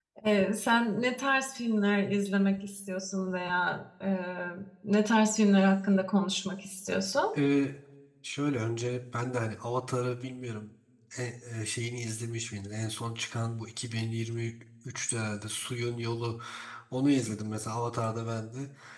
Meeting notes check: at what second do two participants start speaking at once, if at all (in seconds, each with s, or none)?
none